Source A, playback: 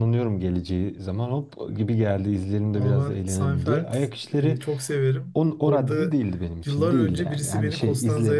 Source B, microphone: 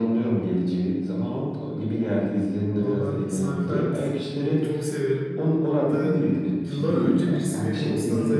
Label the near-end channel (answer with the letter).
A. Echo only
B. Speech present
A